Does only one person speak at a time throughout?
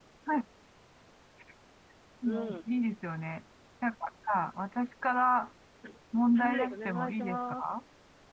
No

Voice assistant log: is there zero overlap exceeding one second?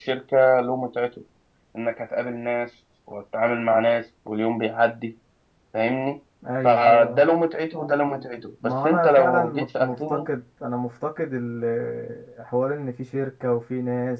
No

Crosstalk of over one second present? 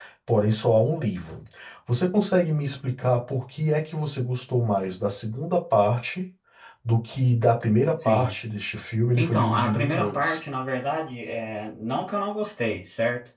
Yes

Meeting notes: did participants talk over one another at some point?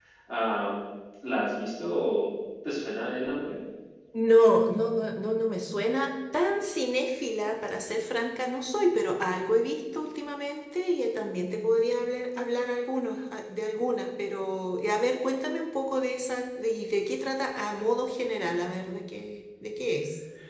No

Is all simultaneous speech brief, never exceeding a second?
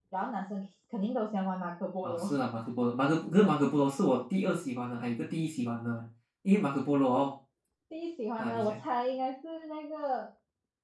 Yes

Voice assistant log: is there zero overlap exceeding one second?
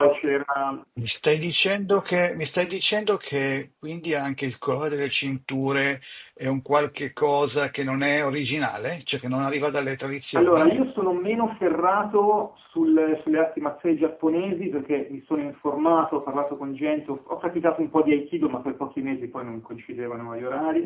Yes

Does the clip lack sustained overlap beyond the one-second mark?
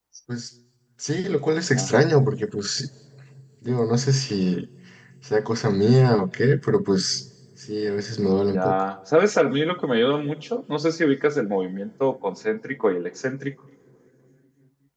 Yes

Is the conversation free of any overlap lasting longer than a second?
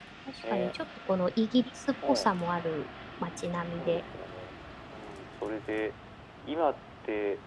Yes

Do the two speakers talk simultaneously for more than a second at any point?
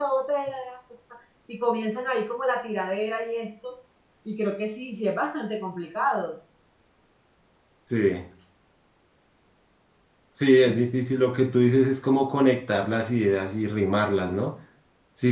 No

